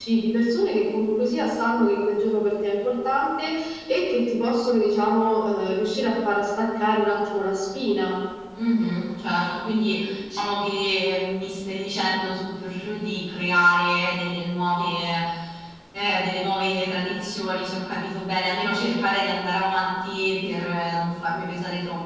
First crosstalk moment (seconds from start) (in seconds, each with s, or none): none